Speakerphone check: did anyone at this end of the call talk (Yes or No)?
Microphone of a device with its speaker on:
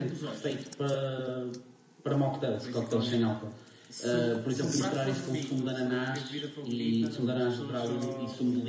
Yes